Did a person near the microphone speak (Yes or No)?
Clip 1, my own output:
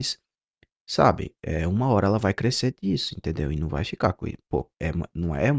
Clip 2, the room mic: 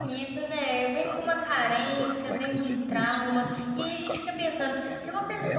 Yes